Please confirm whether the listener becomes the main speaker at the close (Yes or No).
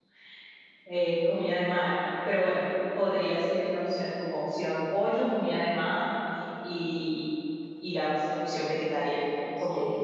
Yes